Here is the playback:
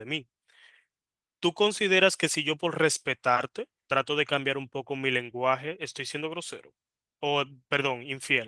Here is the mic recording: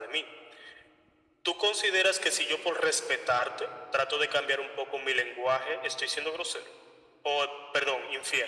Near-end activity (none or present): none